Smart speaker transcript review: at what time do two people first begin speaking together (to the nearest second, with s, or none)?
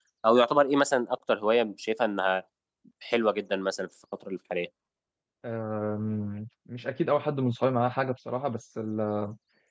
none